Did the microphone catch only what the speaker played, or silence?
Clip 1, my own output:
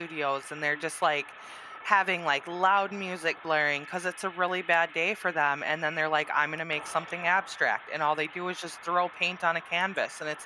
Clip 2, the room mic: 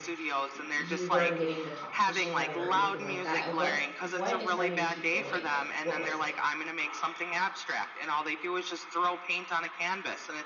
No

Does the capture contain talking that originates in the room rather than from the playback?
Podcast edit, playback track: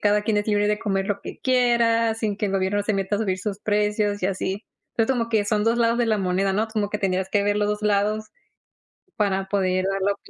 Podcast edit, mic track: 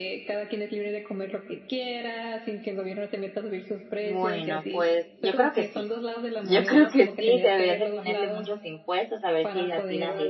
Yes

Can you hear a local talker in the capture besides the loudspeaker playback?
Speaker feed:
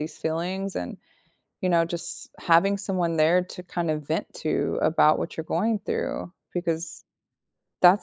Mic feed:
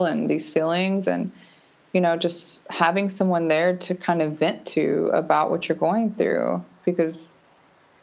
No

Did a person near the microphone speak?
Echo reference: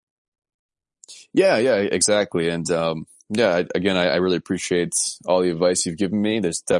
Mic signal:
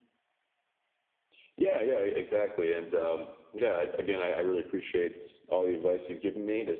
No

